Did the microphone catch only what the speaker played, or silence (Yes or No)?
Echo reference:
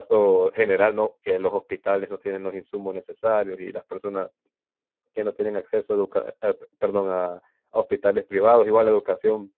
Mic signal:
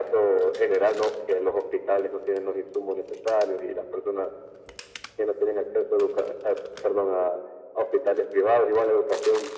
Yes